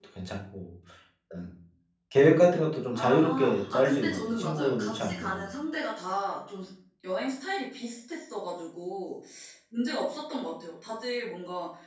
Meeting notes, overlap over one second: present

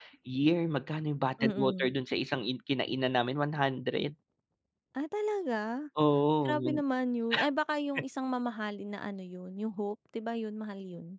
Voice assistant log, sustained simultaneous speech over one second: none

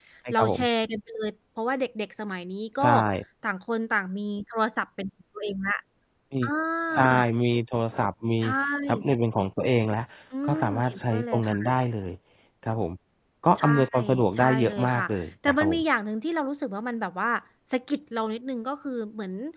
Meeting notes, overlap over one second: present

